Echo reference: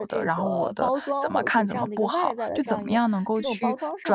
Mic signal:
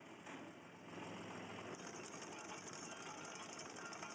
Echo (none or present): none